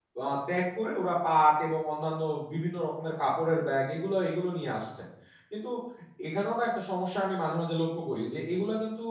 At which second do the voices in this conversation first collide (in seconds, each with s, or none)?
none